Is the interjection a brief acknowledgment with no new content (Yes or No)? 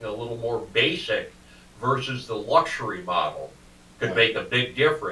Yes